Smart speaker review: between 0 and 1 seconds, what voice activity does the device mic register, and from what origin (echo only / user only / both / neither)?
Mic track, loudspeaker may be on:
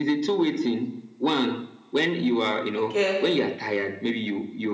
echo only